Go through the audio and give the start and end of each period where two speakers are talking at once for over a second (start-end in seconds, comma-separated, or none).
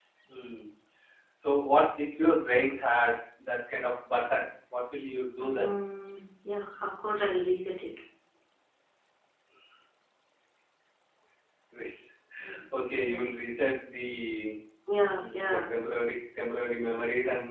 none